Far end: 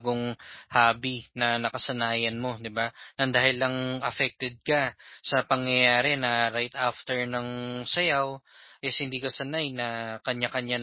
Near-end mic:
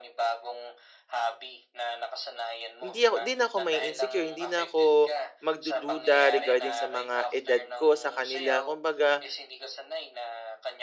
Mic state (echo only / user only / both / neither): both